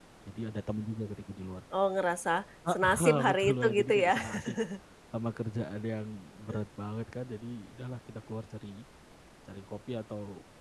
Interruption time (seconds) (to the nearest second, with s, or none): 3 s